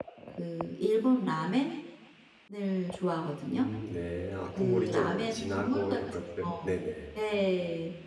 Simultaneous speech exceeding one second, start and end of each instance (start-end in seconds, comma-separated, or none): 4.6-6.4